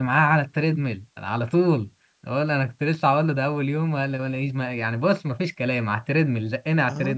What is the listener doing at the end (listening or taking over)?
taking over